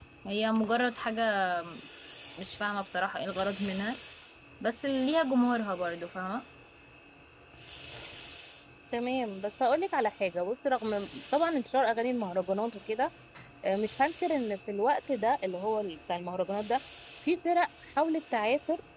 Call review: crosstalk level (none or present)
none